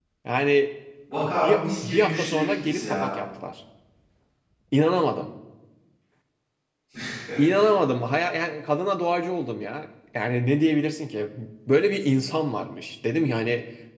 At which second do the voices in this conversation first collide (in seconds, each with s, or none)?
1.2 s